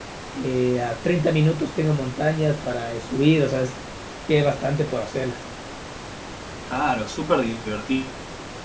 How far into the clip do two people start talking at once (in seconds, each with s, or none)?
none